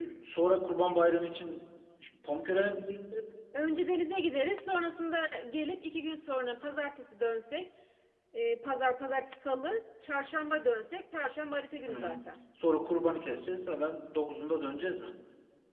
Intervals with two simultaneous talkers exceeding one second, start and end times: none

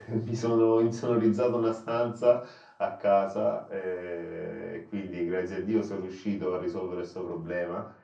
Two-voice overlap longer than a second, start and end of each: none

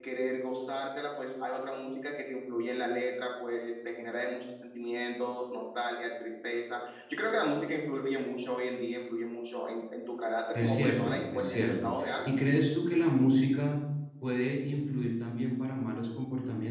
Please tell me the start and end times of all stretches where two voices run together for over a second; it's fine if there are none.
10.6-12.4

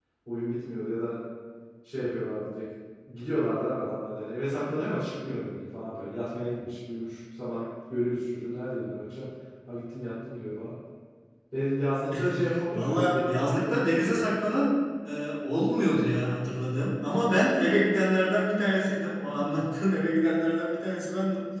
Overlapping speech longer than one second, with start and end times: 12.7-14.2

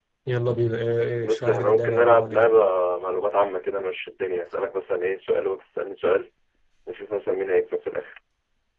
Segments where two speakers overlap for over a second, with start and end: 1.2-2.5

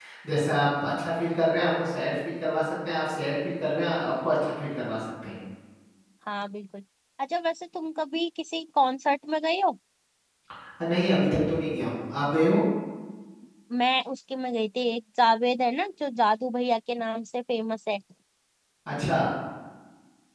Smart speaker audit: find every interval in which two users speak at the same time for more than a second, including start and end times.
none

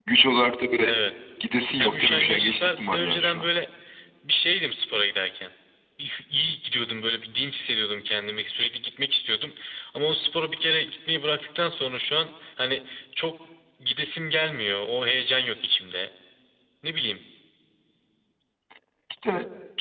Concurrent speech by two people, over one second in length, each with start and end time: 1.8-3.5

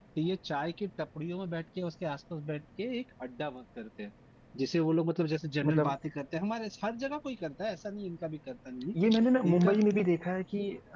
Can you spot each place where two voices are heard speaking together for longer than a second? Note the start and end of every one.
none

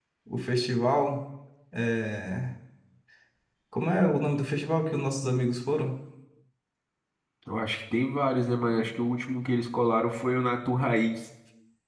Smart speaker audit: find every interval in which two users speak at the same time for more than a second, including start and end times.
none

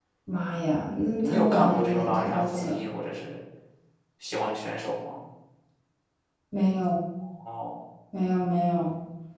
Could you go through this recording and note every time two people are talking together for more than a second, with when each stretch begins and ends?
1.2-2.8

